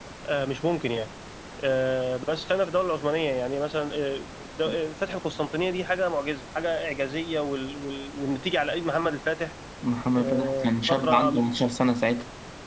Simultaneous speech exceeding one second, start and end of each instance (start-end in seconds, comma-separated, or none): 10.2-11.4